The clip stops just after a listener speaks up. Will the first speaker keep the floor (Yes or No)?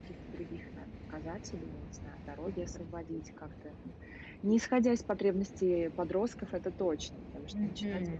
No